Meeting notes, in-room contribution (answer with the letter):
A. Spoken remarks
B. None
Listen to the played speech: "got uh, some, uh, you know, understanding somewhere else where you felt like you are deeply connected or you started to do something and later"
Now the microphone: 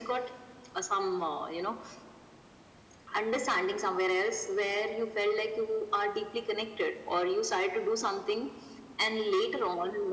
B